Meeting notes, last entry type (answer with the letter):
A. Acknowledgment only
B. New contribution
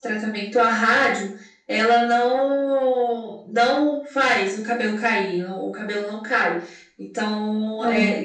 A